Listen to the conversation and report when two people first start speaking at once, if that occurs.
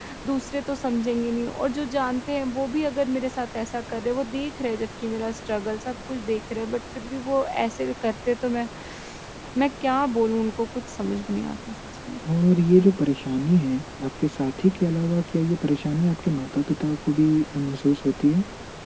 none

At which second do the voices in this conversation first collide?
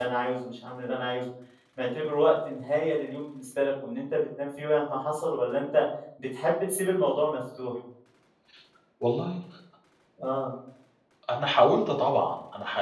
none

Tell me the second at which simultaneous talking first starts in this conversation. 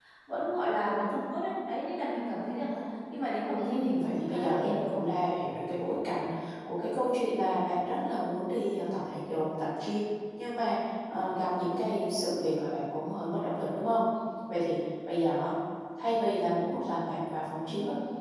3.6 s

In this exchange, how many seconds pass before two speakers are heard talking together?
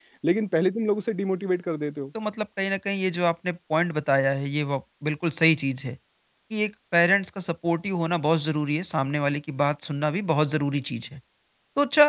none

